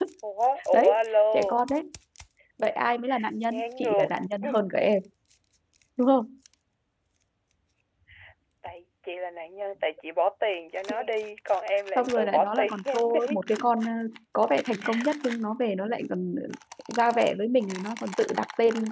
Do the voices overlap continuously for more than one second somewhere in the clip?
Yes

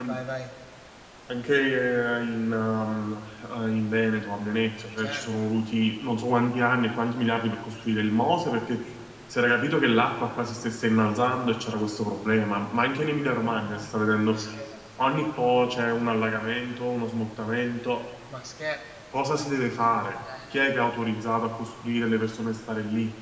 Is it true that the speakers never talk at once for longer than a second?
Yes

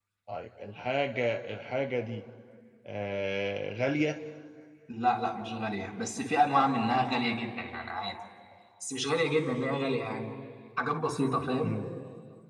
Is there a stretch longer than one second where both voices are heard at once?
No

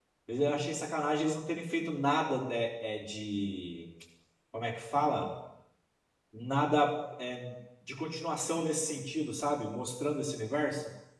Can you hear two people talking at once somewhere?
No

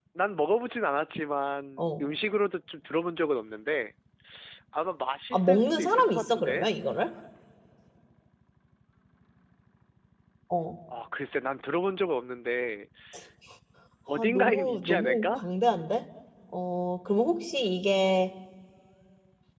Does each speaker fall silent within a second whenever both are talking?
No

